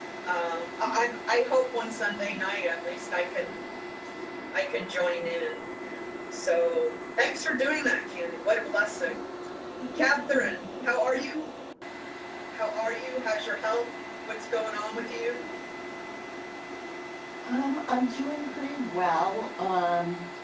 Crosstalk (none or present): none